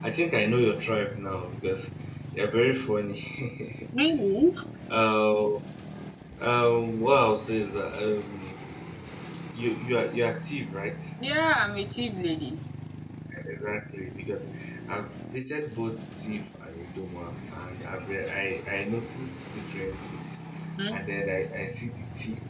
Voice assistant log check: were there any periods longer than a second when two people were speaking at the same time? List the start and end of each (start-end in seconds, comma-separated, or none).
none